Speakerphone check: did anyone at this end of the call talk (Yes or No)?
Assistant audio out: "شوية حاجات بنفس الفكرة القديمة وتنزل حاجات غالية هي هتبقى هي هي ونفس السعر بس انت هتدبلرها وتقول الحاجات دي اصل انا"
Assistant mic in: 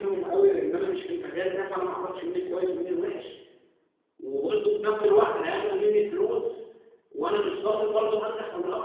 Yes